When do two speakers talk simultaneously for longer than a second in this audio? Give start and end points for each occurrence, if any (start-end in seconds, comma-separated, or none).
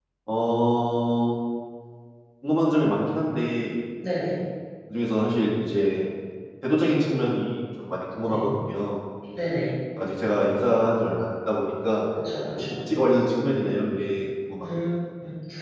none